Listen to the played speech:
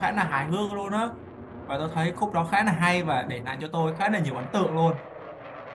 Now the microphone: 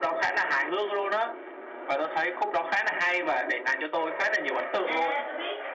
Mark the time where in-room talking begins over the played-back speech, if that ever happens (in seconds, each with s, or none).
4.8 s